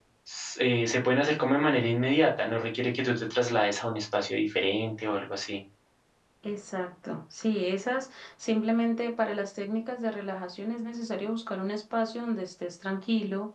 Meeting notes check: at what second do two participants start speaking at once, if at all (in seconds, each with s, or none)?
none